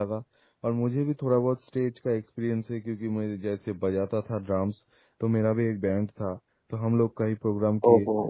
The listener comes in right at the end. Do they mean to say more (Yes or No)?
No